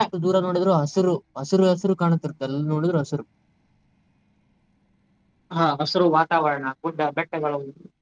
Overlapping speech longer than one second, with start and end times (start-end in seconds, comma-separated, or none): none